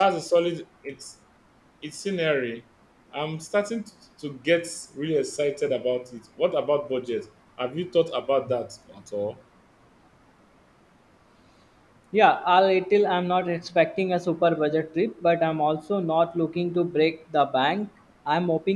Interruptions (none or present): none